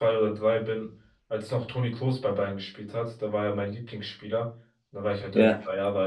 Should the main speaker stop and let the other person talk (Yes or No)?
No